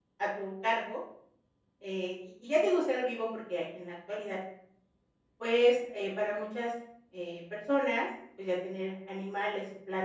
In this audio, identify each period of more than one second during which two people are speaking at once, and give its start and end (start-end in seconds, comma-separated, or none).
none